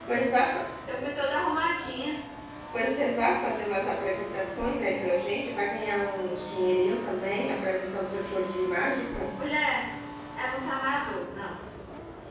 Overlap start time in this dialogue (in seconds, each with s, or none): none